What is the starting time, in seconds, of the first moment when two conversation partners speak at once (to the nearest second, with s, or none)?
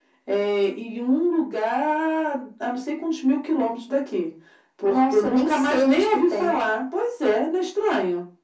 5 s